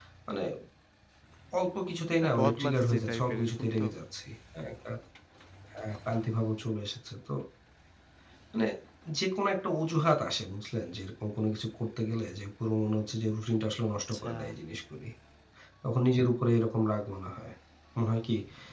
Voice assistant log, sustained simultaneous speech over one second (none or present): present